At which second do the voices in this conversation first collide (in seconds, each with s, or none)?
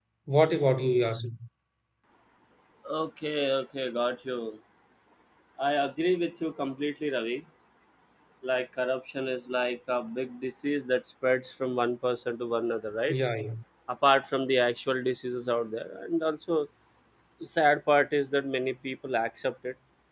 none